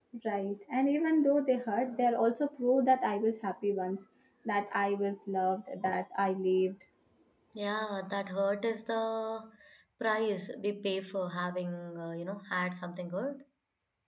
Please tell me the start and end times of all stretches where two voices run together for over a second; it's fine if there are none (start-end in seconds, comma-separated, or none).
none